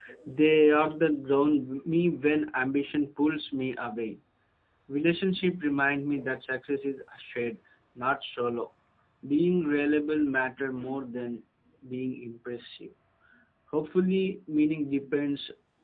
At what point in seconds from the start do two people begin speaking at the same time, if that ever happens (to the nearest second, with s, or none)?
none